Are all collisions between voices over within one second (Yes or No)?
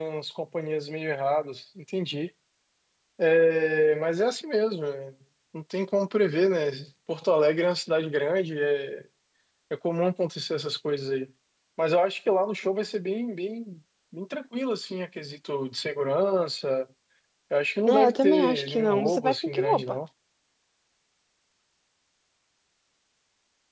No